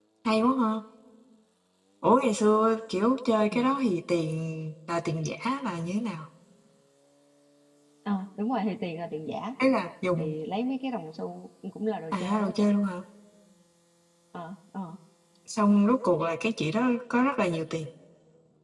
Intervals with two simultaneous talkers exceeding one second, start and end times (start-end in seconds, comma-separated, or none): none